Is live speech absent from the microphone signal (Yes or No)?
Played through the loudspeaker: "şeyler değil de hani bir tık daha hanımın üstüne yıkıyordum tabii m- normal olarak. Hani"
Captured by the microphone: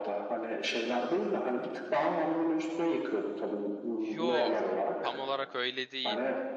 No